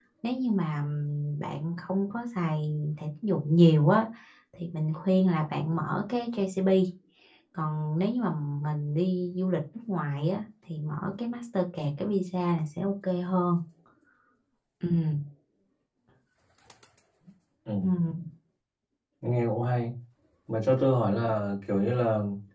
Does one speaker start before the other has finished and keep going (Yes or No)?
No